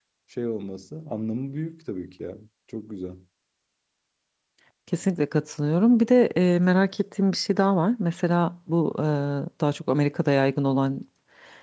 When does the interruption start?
none

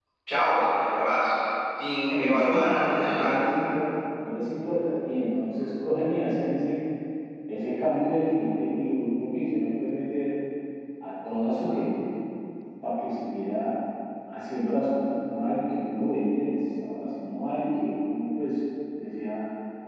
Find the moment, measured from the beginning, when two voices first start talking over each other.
2.1 s

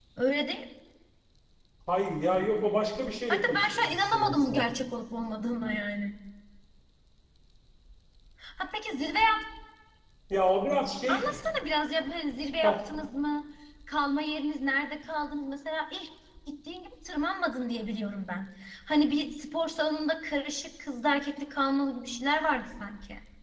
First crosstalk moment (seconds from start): 3.3 s

